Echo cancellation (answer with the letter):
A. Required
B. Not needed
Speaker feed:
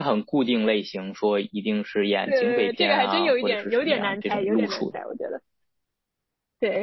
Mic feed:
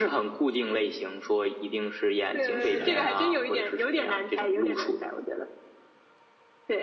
A